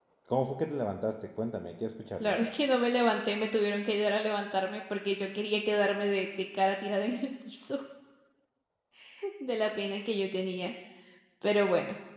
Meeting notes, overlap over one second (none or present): none